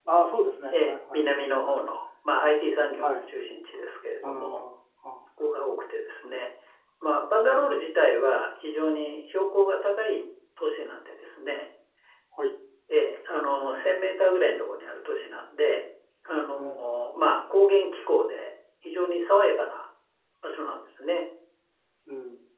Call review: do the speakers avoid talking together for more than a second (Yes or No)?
Yes